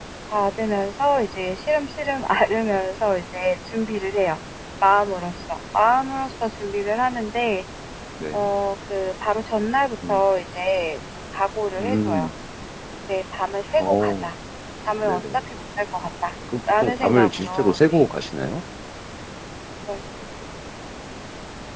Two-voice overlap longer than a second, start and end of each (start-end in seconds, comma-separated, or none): 16.7-18.1